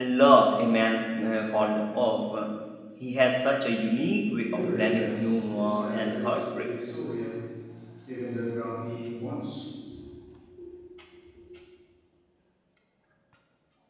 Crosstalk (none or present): present